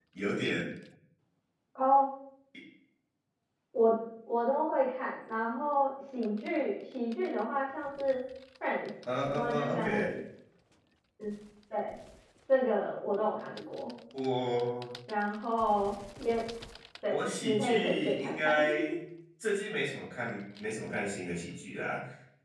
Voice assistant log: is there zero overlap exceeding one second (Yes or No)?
No